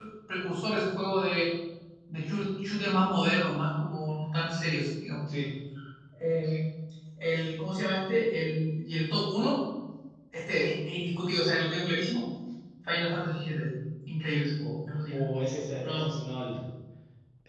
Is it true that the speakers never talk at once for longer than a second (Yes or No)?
Yes